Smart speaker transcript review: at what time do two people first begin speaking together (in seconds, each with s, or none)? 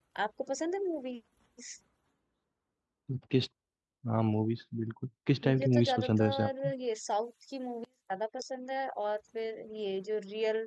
5.4 s